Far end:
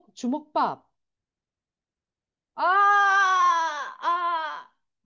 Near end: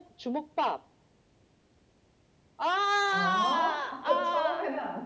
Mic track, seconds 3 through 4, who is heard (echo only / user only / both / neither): both